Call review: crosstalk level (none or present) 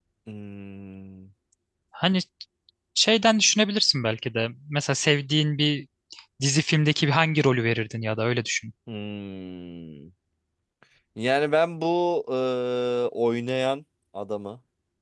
none